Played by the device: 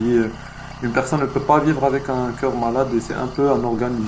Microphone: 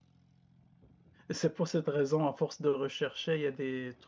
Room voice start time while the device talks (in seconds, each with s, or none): 1.3 s